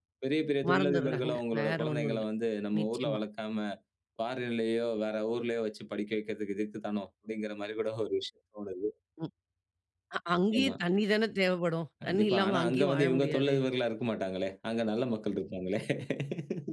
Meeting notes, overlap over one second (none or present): present